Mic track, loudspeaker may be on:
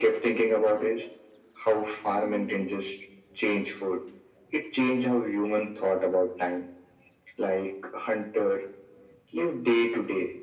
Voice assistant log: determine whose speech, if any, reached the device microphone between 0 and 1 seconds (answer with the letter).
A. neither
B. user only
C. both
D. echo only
D